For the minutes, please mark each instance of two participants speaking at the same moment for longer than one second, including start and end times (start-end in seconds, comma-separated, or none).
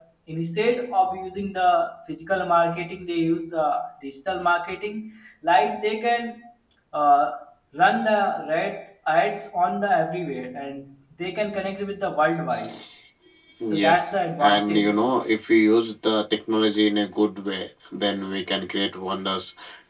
13.7-15.0